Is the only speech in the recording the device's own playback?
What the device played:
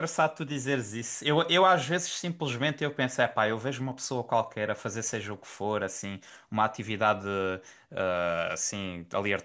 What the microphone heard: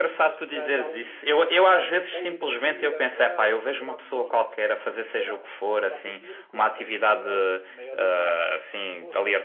No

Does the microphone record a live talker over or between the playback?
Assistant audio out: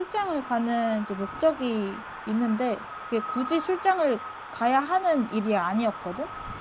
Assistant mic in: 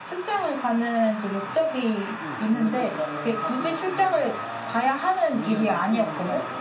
Yes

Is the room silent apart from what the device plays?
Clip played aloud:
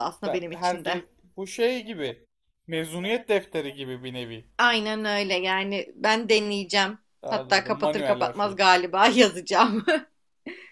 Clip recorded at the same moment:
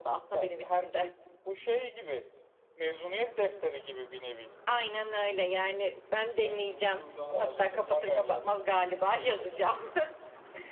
No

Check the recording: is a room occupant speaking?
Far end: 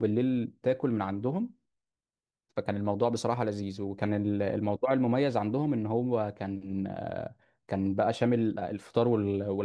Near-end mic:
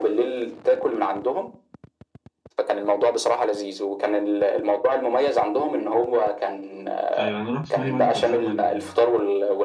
Yes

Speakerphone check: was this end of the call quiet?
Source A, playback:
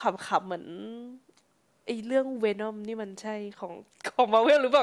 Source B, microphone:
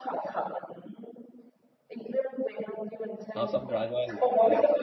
No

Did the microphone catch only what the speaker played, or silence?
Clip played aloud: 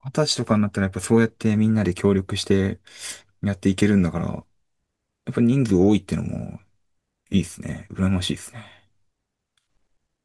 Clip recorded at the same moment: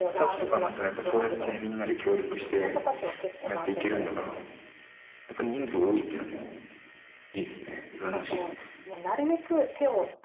No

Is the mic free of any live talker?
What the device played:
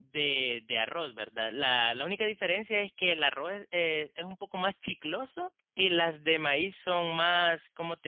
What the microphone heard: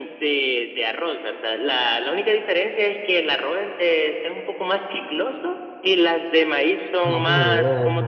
No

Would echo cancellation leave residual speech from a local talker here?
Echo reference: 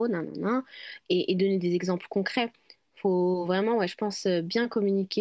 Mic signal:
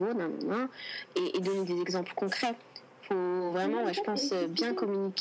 Yes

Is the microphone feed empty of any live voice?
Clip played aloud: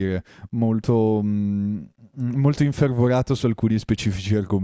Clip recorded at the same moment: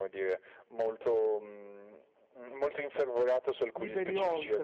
No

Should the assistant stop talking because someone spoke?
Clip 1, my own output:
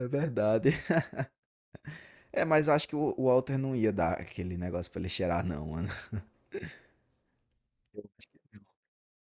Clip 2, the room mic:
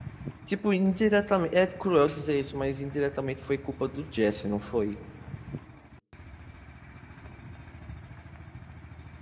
Yes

